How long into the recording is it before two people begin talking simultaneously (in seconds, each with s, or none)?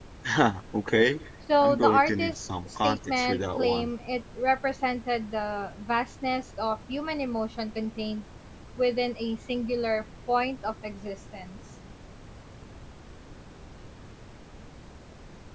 1.6 s